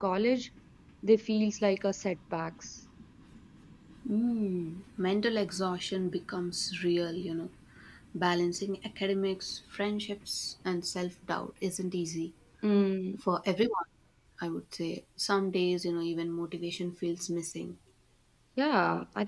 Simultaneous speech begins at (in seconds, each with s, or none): none